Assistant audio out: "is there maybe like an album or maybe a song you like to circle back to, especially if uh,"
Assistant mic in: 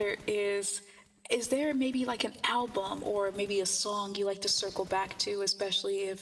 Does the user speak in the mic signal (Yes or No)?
No